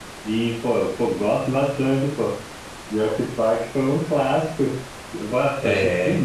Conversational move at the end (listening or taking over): listening